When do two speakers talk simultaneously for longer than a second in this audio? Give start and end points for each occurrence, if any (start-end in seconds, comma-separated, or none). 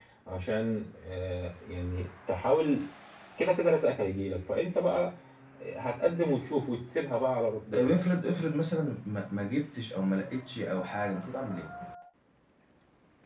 none